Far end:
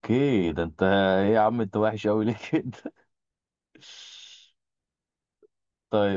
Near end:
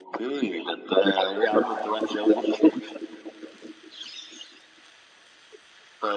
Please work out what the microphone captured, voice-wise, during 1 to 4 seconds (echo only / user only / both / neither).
echo only